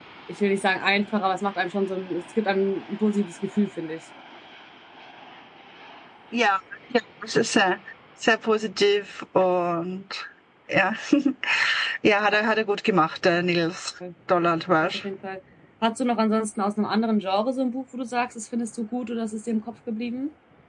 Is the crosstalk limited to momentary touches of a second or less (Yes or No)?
Yes